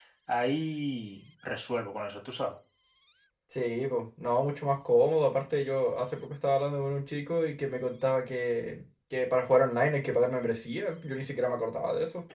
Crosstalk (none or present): none